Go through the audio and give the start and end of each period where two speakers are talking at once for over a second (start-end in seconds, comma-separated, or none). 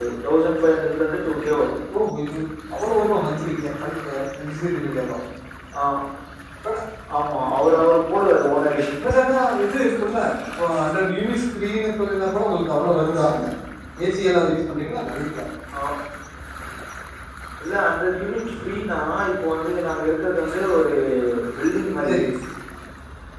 none